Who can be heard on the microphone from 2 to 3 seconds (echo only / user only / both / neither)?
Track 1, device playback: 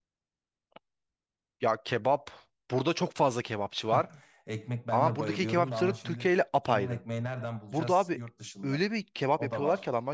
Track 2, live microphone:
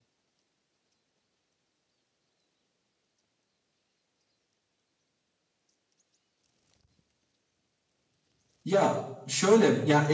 neither